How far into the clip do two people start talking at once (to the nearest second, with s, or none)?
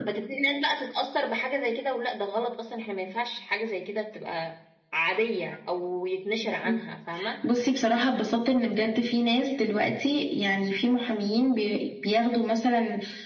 none